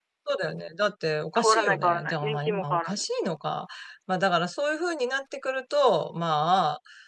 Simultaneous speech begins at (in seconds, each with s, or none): 1.4 s